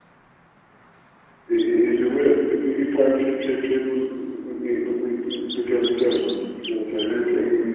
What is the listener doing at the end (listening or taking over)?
taking over